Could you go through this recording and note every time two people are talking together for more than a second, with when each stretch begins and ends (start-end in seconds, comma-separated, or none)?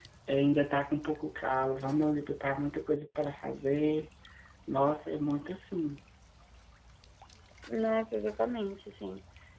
none